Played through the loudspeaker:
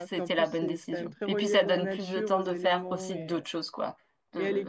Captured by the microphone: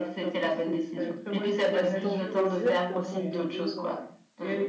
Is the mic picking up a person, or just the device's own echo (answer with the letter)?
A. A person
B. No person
A